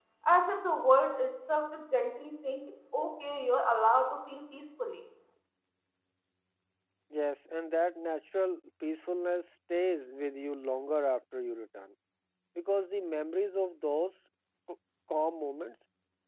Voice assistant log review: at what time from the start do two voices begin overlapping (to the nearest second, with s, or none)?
none